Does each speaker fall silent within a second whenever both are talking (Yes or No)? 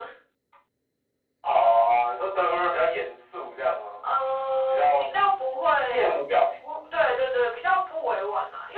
Yes